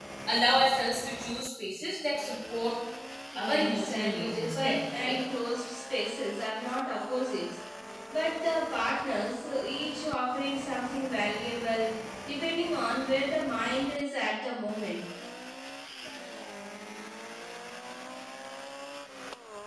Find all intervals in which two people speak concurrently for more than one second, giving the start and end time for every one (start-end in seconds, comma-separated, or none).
3.4-5.2